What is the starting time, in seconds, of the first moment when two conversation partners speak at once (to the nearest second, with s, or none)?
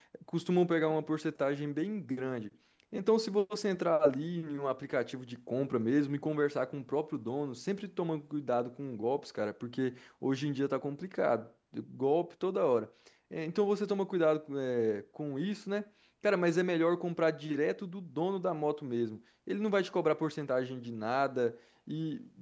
none